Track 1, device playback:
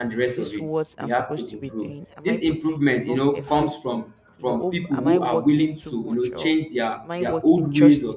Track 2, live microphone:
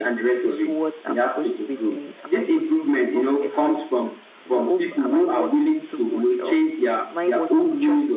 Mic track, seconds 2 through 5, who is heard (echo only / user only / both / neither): echo only